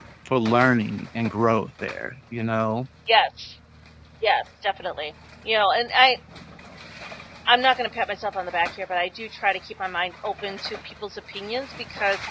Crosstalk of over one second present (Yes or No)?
No